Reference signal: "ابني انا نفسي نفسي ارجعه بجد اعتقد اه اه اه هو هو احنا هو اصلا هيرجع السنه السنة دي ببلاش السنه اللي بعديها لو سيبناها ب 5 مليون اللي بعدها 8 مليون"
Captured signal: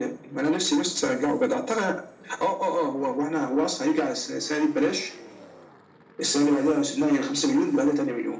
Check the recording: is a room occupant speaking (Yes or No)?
No